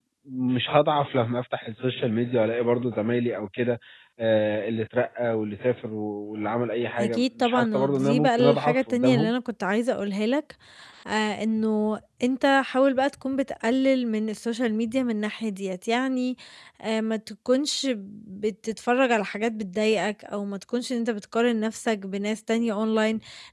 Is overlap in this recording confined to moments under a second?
No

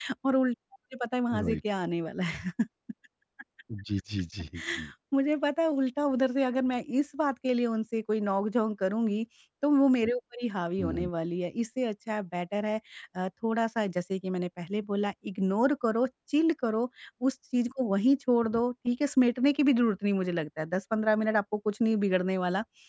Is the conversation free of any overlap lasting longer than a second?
Yes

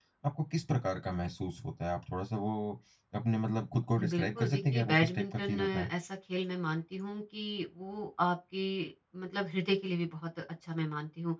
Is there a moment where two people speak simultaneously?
Yes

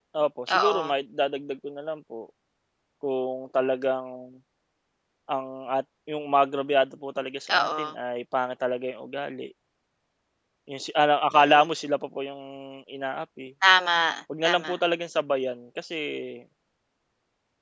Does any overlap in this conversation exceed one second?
No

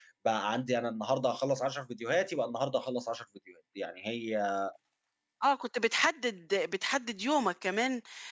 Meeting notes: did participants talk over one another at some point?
No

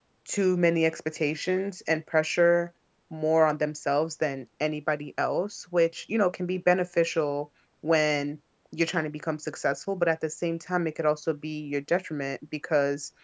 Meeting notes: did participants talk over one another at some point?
No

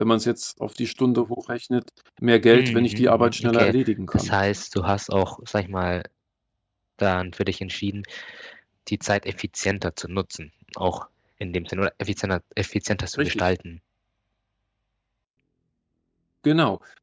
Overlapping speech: Yes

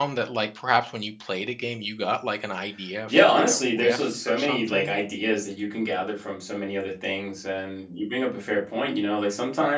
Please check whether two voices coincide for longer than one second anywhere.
Yes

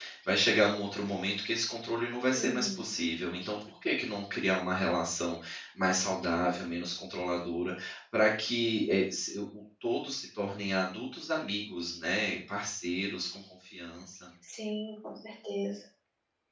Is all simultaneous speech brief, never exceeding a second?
Yes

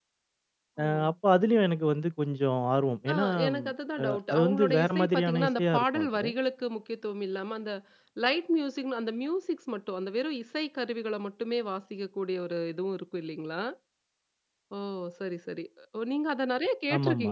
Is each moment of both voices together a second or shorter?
No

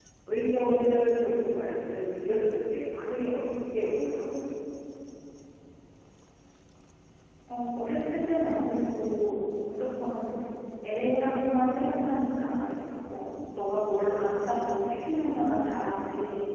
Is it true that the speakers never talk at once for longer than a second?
Yes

